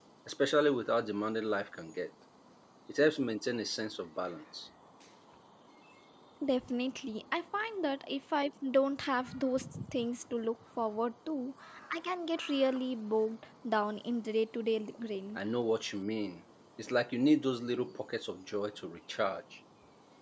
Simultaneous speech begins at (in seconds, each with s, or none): none